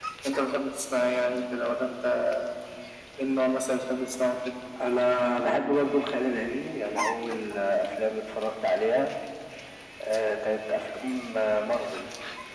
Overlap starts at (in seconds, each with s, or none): none